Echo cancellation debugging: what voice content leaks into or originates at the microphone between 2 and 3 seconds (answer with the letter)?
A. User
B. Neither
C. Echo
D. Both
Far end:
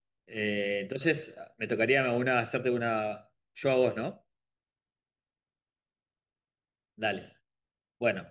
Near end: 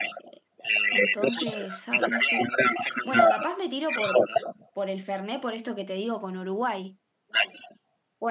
D